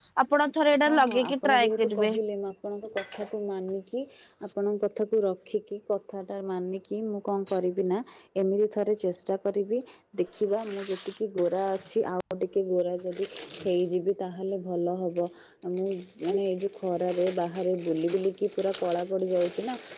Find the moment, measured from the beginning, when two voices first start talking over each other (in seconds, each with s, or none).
0.9 s